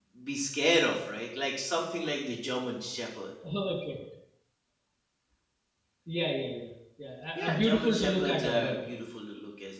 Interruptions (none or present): present